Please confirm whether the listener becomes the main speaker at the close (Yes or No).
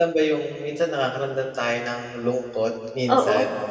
Yes